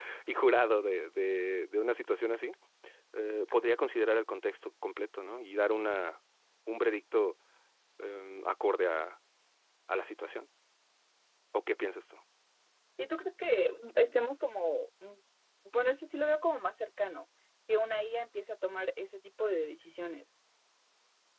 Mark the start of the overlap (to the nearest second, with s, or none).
none